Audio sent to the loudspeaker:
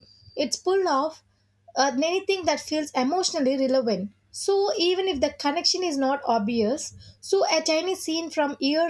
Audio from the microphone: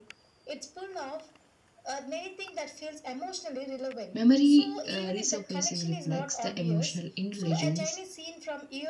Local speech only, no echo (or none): Memory uh, resurfacing reflects the emotional intelligence,